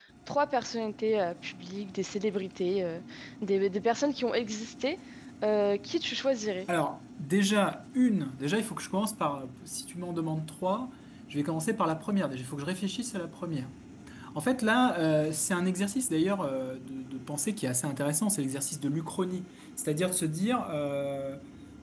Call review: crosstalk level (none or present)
none